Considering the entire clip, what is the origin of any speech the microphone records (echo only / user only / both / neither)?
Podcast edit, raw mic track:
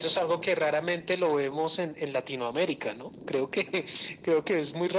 echo only